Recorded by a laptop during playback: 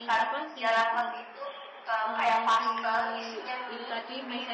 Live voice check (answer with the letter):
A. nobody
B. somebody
B